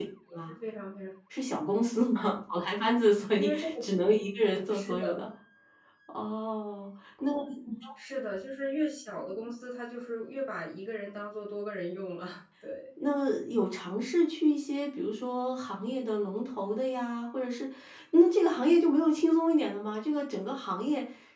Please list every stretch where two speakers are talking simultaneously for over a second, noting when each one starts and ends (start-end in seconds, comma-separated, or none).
none